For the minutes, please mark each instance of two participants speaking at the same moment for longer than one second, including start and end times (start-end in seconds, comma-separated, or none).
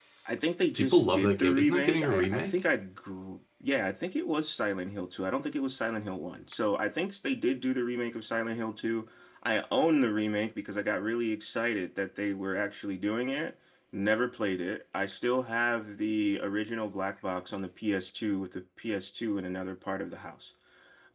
0.8-2.5